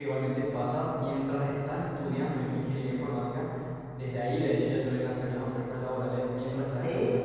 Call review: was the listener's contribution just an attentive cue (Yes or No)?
No